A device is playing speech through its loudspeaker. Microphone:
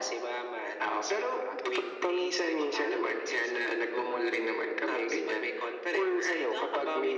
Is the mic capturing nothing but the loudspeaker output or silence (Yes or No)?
Yes